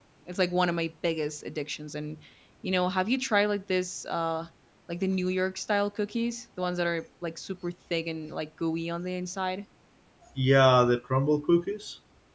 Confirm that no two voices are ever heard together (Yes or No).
Yes